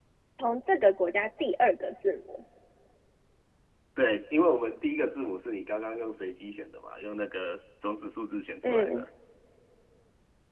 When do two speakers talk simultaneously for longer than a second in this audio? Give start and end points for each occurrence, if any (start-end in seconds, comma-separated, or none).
none